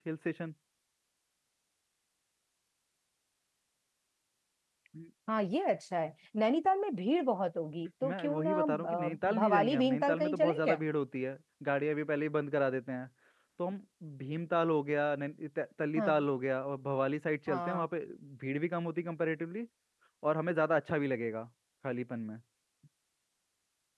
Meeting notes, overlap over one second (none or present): present